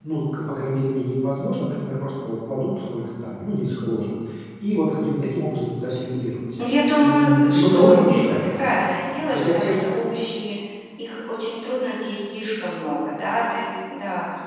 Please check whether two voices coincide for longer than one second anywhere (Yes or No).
Yes